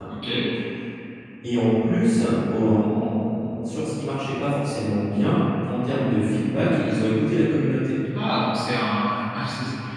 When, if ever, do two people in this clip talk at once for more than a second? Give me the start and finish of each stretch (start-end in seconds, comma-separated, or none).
none